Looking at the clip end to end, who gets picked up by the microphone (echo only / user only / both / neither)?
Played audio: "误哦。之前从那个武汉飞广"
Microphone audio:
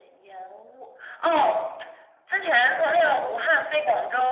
echo only